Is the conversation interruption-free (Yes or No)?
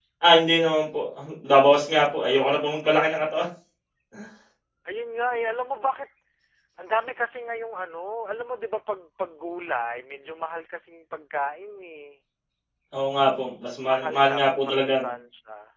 No